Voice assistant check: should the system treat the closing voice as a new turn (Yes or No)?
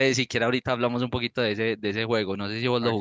Yes